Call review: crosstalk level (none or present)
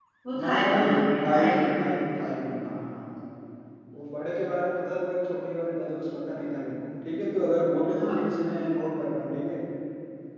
present